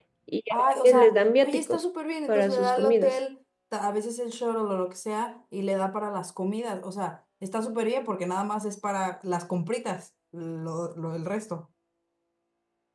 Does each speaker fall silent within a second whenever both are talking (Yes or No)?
No